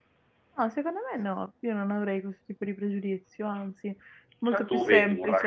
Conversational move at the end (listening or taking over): taking over